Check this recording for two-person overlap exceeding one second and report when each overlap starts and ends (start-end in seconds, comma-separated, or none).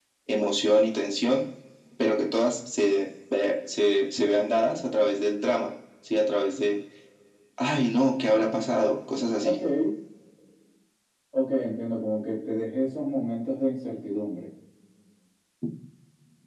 none